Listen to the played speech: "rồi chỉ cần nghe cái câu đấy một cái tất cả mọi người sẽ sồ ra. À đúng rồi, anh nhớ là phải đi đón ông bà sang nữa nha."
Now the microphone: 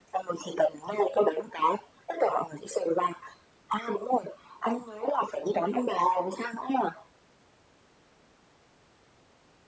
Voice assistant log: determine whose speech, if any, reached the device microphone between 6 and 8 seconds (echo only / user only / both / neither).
echo only